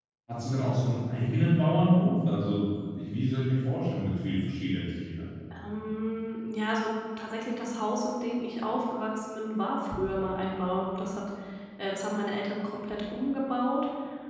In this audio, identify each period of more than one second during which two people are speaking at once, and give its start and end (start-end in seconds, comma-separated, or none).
none